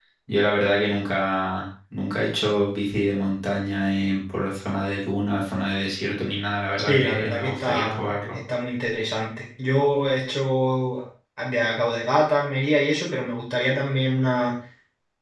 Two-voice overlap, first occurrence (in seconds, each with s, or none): 6.8 s